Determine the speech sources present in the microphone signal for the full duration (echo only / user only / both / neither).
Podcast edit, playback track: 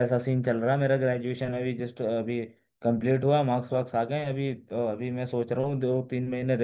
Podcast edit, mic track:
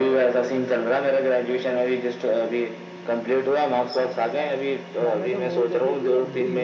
both